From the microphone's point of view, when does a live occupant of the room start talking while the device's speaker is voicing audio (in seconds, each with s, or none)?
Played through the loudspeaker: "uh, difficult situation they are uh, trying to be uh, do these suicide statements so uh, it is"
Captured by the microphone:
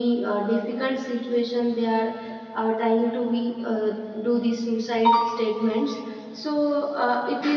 none